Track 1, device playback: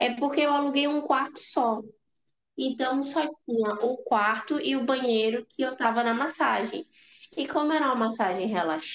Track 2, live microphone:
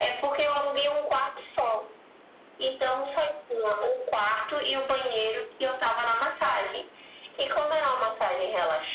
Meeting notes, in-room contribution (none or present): none